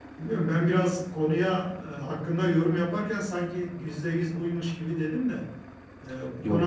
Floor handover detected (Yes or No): No